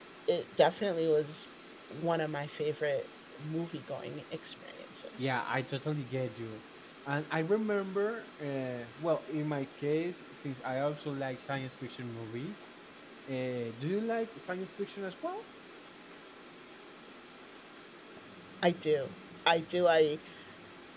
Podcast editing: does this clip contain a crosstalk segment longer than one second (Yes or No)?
No